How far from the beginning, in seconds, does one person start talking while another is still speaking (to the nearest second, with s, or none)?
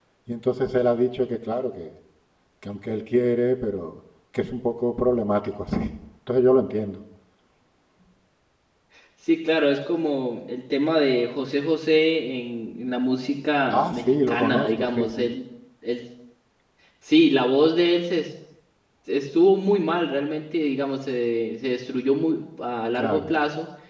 14 s